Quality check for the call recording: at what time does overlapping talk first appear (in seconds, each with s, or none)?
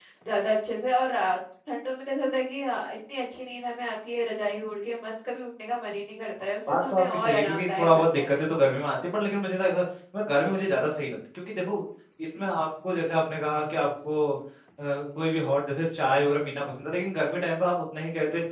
6.7 s